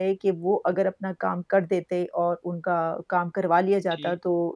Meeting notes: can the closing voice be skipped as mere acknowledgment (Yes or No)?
Yes